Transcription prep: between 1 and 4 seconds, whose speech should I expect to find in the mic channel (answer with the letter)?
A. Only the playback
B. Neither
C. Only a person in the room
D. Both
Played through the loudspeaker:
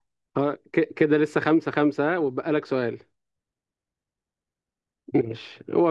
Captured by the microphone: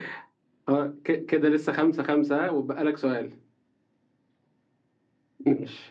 A